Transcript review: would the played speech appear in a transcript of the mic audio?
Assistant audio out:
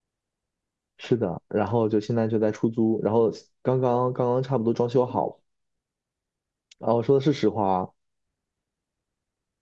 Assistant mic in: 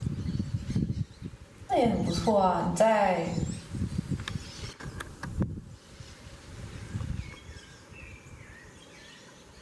No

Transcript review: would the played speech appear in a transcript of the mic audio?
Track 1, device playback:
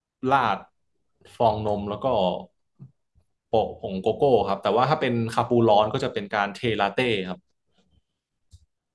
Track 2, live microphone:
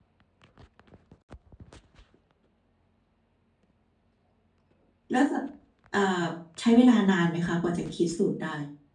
No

